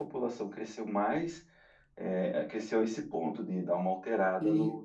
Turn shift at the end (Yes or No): Yes